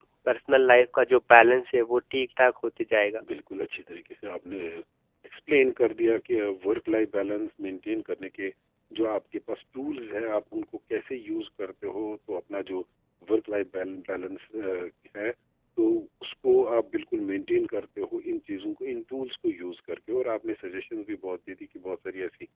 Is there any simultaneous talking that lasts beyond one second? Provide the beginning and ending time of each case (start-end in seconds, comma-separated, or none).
none